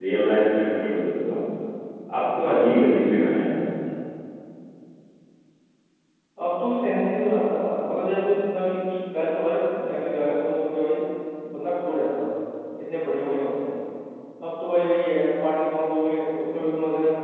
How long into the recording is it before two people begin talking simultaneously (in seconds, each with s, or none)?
none